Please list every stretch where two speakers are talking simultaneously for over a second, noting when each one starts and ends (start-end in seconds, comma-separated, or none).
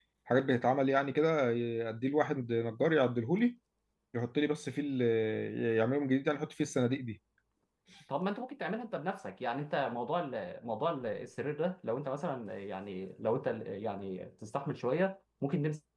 none